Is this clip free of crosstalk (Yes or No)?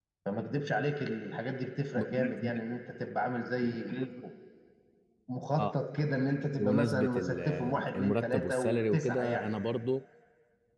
No